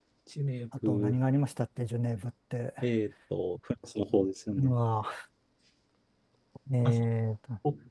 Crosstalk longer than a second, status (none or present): none